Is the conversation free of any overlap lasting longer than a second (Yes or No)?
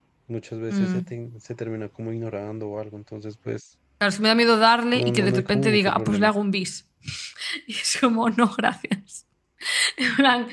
No